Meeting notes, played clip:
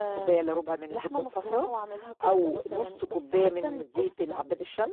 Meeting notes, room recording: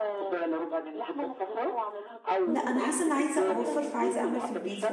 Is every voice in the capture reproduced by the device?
No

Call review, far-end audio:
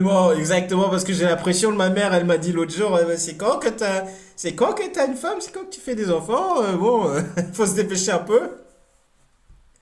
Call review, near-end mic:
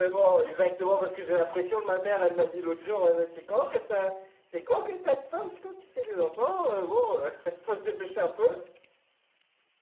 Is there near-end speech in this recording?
No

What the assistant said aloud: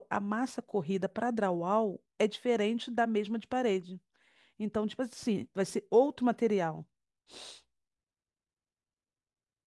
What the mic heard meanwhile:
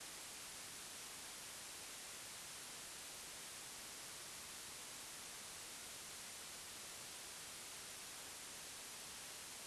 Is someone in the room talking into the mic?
No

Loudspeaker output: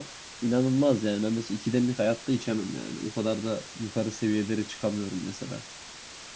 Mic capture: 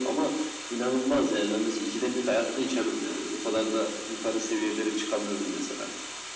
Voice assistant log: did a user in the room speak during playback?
No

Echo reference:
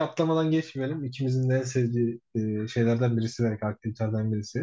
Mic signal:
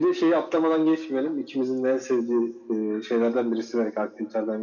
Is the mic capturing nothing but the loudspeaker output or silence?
Yes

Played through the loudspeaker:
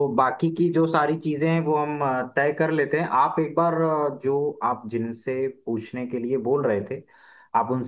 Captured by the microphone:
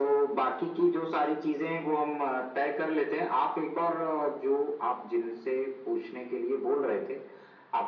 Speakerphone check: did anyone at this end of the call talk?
No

